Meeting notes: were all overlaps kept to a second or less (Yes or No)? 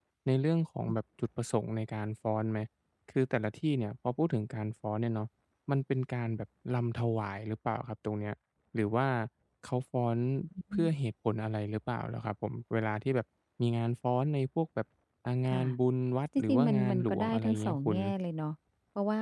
No